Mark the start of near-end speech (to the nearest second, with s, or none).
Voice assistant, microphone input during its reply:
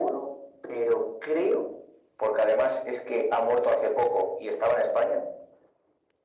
none